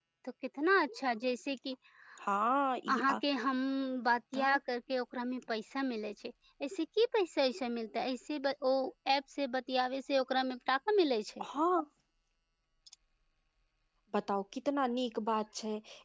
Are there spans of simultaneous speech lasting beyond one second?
No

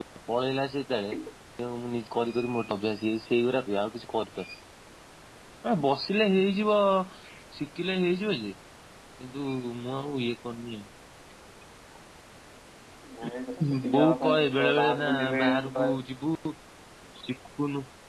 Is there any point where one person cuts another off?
Yes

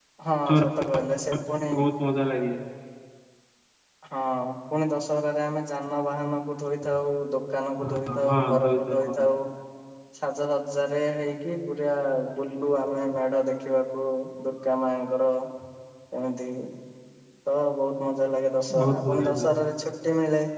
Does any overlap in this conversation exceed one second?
Yes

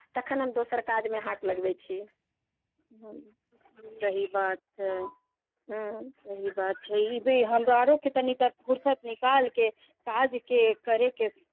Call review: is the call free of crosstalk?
Yes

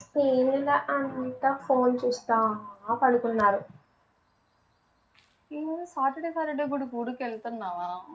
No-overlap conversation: Yes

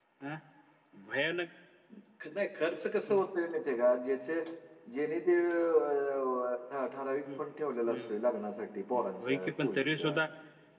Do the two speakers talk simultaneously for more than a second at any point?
Yes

